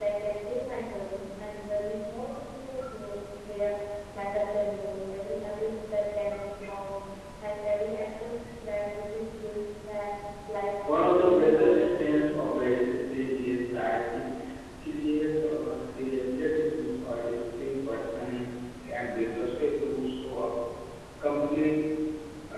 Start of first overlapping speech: 10.9 s

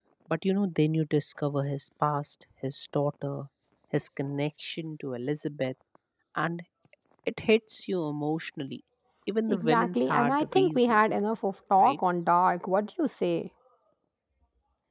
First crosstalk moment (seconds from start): 9.5 s

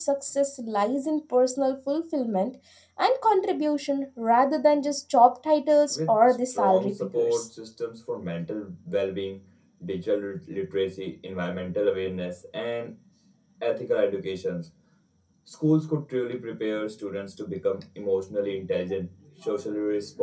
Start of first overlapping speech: 5.9 s

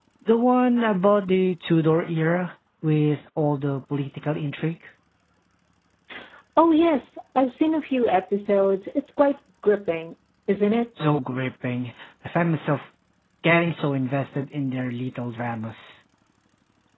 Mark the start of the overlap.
none

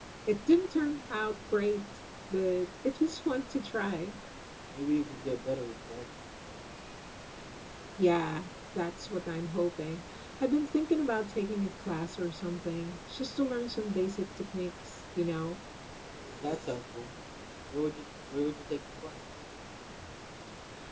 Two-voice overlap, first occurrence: none

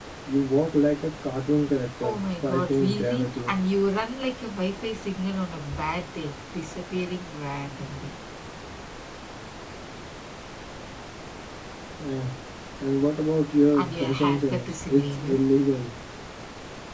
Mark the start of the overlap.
2.0 s

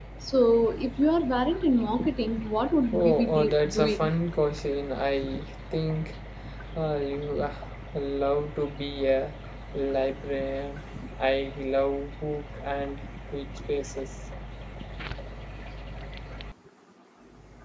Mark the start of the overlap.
2.9 s

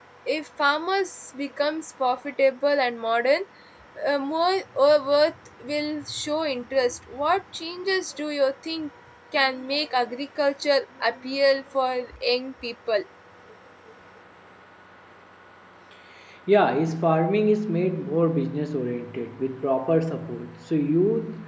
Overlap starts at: none

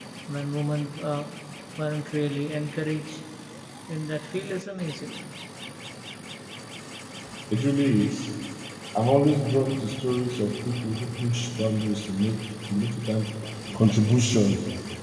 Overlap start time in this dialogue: none

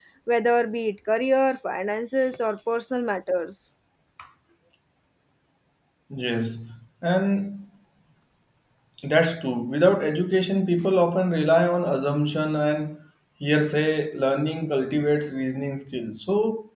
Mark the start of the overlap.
none

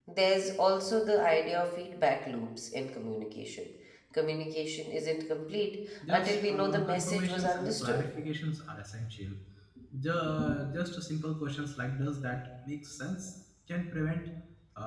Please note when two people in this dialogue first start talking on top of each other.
6.1 s

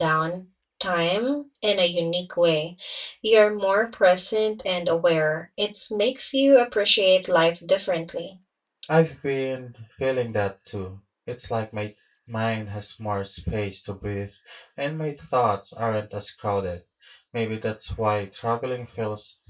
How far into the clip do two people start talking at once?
none

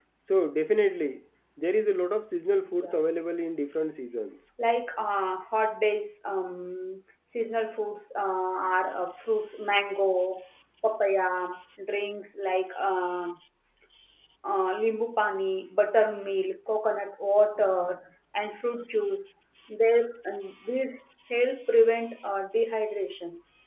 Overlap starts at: 2.6 s

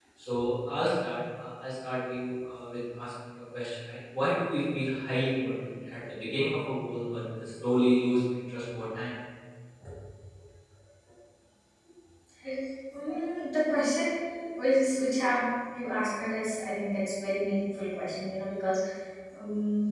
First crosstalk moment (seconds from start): none

